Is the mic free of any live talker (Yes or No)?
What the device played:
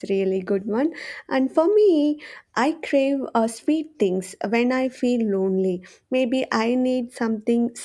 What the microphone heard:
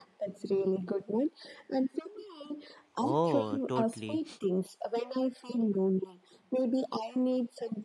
No